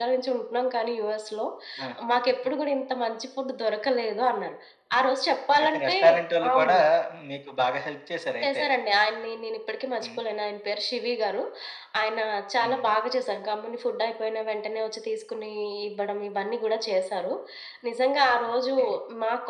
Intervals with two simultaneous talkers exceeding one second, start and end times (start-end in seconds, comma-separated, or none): none